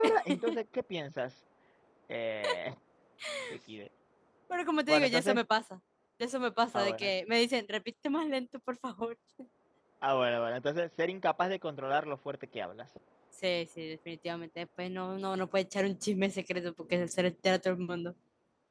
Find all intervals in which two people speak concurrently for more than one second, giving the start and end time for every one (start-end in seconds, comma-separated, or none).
none